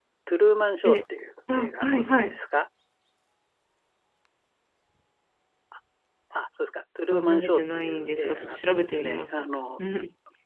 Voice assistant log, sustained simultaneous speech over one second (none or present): present